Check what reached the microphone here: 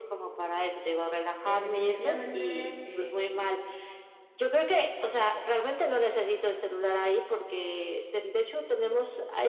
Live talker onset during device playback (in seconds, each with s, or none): 1.4 s